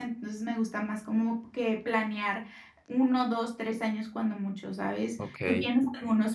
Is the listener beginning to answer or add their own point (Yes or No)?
No